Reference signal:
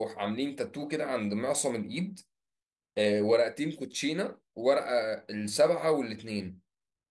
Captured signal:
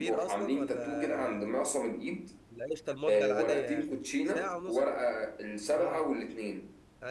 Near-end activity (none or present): present